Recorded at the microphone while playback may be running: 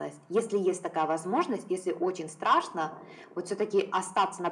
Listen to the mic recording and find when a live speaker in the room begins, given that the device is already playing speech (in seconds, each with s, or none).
none